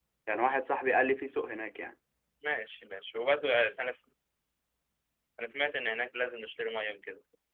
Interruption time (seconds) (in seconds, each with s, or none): none